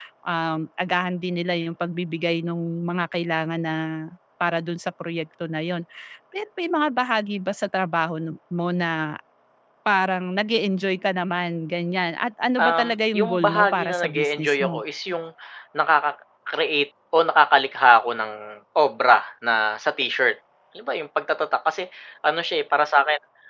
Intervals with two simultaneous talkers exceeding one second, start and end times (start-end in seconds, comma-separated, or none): 12.6-14.8